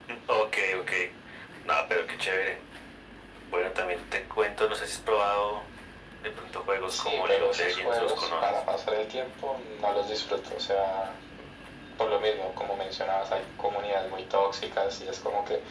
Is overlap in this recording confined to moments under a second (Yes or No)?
No